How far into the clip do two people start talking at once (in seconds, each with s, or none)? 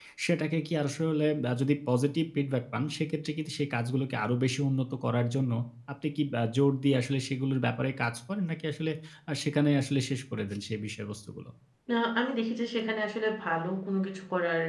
none